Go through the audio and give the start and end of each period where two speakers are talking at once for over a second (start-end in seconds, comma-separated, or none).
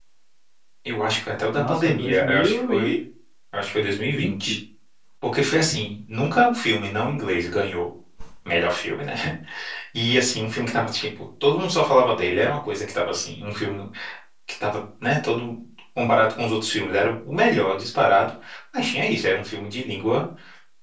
1.5-3.0